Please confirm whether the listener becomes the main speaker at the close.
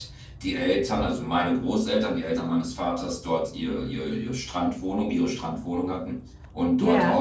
No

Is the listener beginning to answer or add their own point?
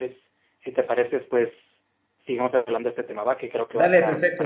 Yes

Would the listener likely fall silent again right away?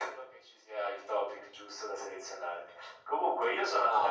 Yes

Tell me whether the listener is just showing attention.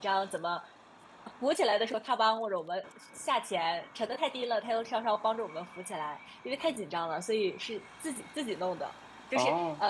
Yes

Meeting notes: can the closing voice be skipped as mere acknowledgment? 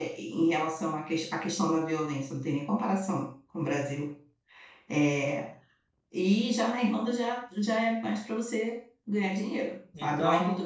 Yes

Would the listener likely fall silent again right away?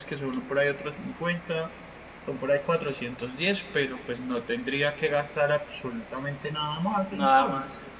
No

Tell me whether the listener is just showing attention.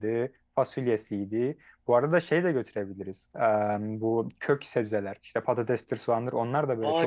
No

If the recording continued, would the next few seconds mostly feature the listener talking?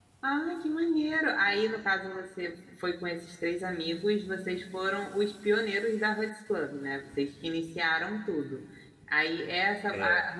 No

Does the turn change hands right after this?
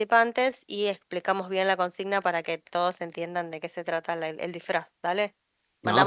No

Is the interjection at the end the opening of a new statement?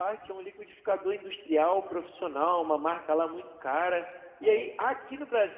No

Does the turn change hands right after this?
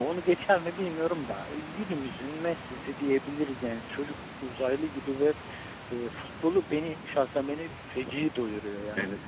Yes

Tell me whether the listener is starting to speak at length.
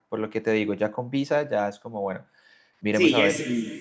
Yes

